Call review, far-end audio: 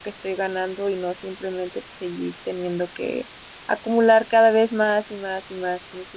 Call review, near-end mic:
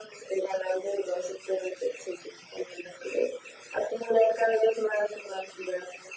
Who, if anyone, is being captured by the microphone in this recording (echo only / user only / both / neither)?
echo only